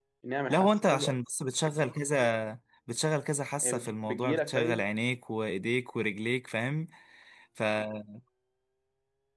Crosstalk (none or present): present